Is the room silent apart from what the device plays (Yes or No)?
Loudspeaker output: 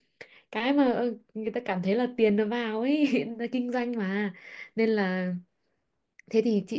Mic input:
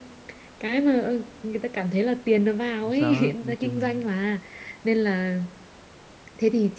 No